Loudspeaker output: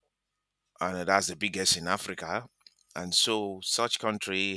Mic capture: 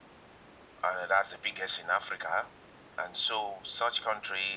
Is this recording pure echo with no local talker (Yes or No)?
Yes